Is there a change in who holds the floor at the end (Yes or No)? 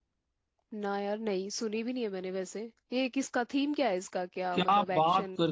Yes